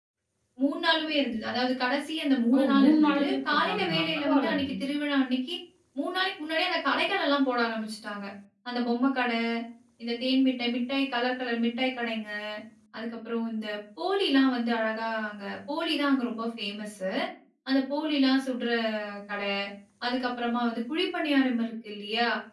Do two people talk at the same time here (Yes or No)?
Yes